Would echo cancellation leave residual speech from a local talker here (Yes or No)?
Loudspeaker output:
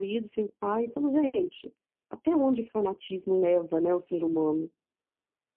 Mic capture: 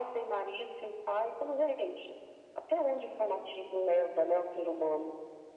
No